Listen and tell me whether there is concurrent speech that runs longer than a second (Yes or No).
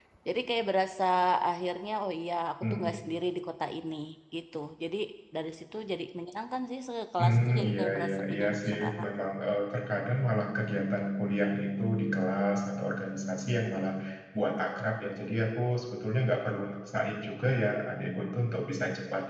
Yes